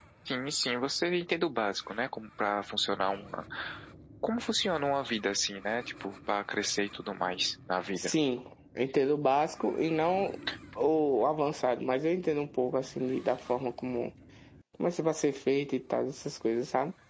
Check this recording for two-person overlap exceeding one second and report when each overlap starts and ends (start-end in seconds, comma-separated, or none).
none